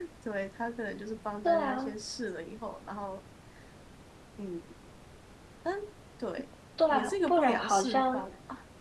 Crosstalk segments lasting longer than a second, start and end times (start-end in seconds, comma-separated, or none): 6.9-8.3